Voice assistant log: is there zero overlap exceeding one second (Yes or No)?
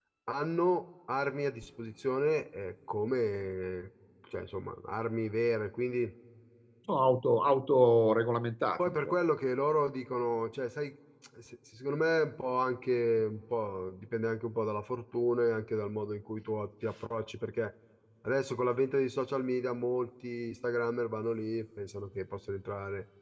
Yes